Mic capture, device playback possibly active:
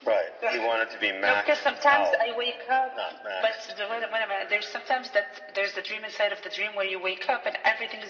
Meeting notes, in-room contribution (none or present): none